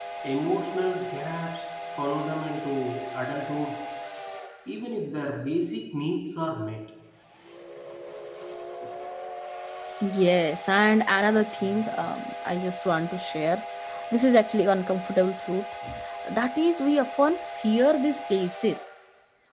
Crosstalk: none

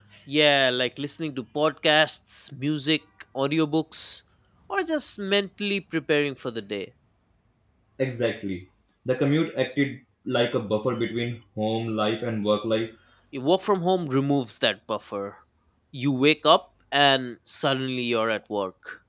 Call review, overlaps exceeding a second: none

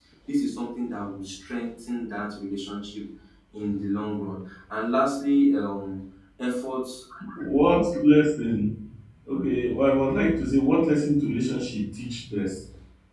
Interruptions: none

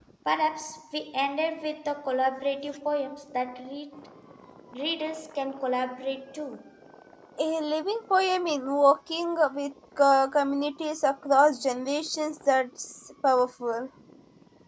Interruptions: none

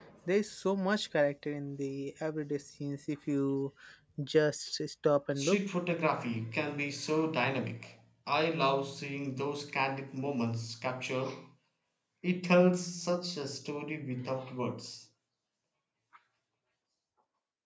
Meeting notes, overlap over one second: none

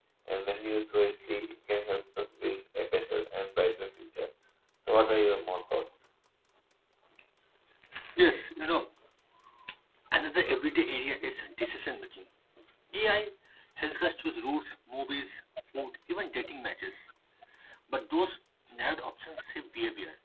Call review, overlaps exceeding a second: none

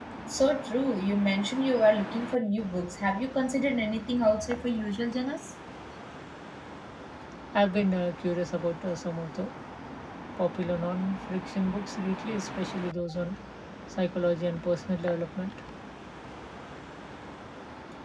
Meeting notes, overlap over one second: none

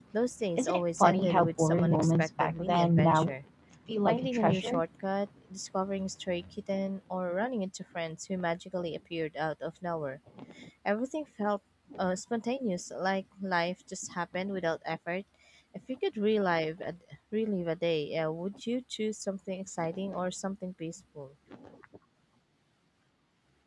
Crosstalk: present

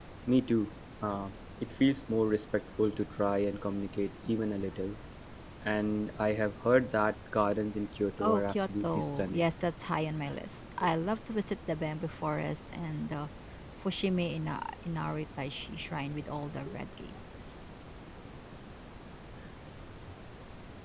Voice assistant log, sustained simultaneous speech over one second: present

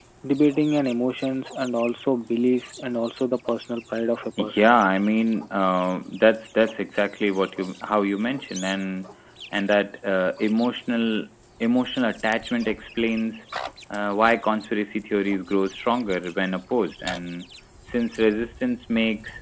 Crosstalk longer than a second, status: none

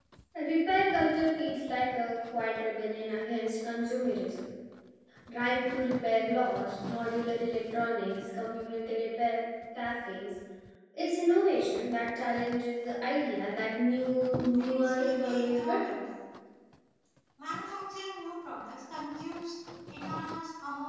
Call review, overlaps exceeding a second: present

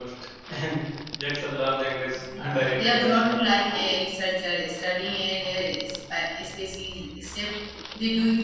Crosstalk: present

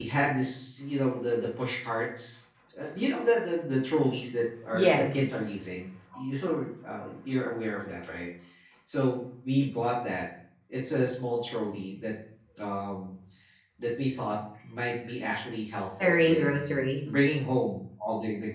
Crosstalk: present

